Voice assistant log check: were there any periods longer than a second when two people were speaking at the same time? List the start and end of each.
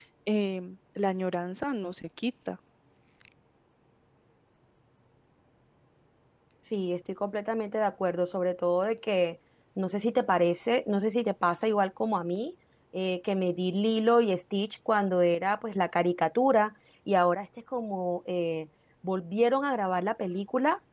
none

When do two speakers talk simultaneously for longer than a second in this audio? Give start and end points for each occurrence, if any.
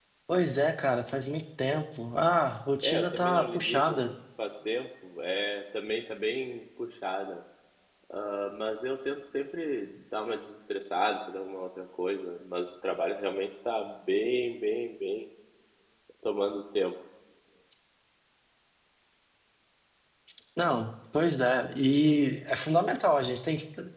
2.8-4.1

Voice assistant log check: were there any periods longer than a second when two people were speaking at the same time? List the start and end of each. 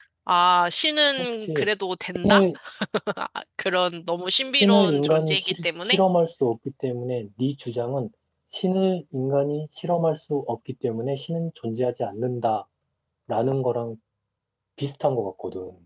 4.6-6.0

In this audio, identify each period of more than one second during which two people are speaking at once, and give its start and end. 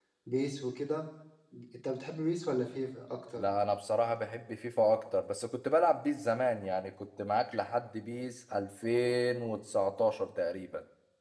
none

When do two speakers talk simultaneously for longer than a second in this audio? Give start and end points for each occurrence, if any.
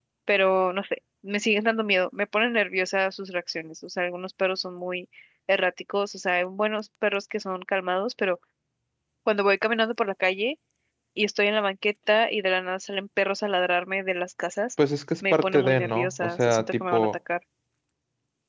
15.3-17.1

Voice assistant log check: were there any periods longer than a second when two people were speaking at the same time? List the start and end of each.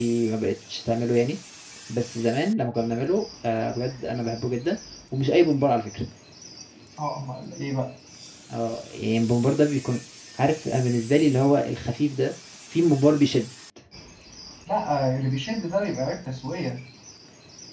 none

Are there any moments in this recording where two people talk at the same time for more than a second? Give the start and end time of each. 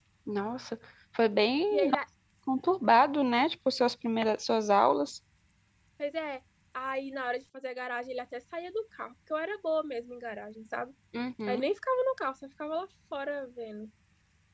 none

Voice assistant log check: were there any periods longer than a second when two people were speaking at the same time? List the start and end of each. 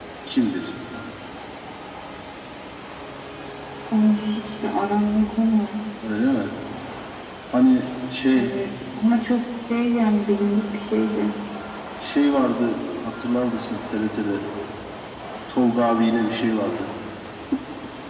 none

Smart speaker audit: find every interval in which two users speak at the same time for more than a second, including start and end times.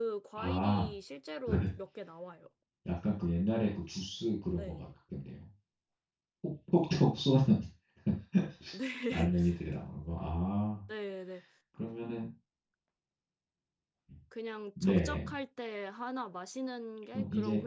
none

